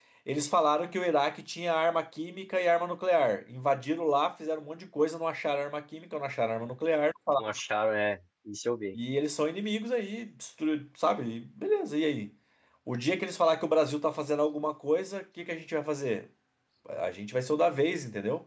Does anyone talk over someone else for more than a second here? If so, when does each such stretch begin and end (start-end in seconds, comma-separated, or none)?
none